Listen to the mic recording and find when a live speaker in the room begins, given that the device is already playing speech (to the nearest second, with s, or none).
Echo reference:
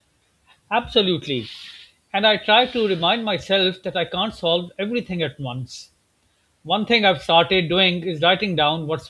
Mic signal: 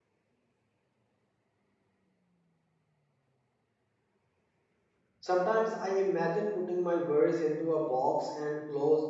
5 s